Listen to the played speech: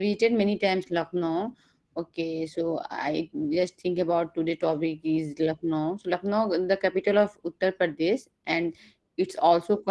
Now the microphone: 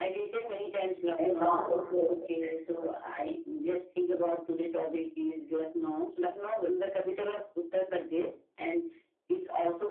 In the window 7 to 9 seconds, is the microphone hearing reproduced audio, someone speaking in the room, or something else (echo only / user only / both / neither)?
echo only